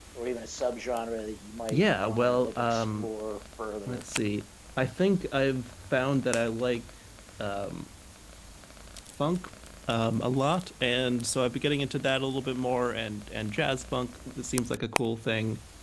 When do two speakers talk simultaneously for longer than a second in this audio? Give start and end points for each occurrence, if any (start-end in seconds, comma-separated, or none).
1.7-3.1